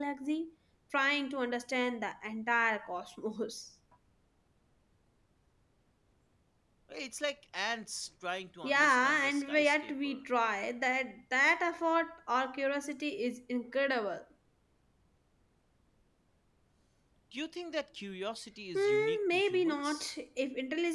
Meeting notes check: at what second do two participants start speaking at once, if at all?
8.6 s

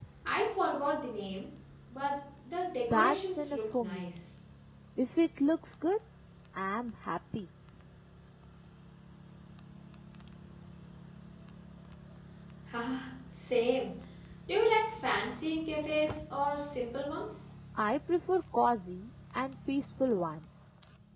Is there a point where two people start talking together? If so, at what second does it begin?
2.9 s

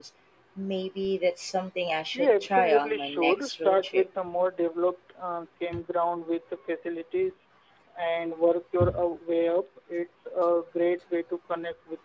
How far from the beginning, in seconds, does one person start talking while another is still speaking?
2.1 s

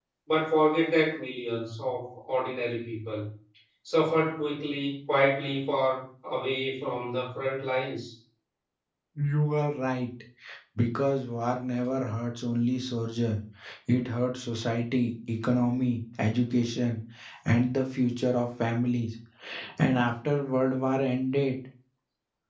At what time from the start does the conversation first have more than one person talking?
none

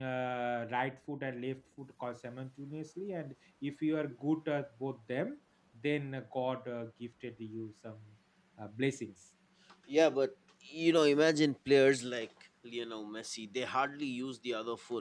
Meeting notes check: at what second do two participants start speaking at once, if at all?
none

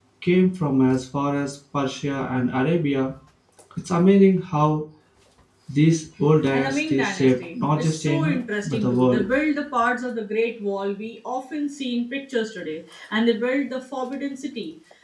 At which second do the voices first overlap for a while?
6.5 s

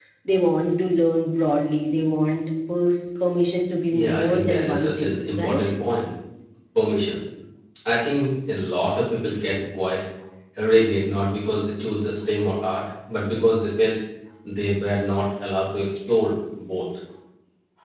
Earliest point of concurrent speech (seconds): 3.9 s

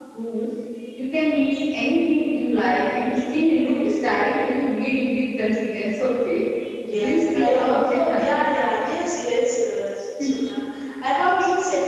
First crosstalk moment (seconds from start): 6.9 s

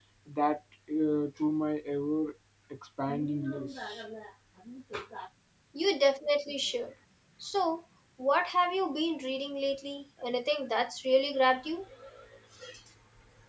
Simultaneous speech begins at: none

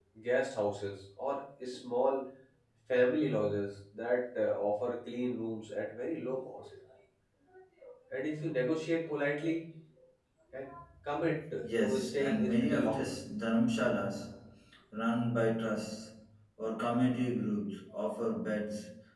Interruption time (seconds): 11.6 s

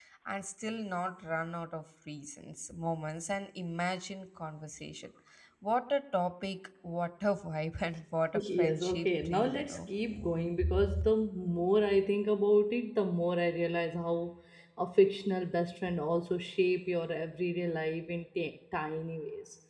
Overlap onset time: 8.3 s

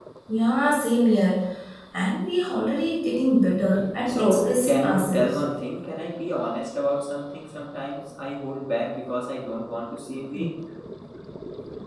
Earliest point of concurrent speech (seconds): 4.1 s

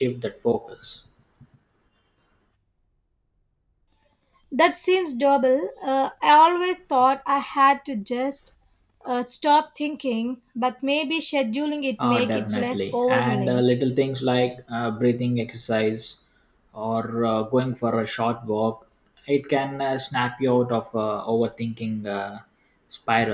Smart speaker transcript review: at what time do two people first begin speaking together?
12.0 s

